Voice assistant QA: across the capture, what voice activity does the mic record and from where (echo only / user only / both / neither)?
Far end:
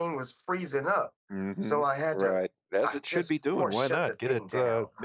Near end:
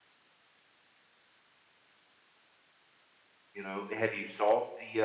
user only